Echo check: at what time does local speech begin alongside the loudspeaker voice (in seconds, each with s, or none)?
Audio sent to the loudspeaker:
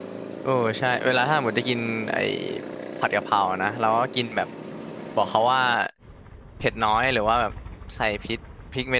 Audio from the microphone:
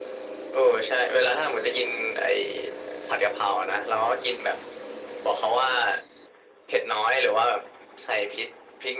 none